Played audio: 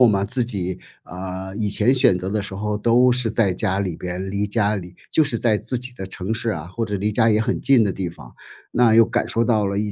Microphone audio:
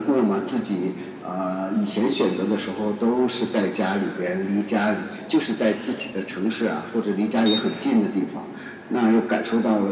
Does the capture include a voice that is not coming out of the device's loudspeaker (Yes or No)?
No